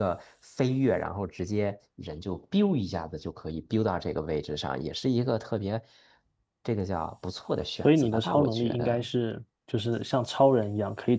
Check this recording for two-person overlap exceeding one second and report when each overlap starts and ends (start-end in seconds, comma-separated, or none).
7.8-9.1